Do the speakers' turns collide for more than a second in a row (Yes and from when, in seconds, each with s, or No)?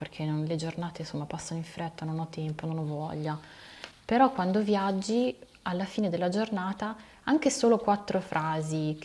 No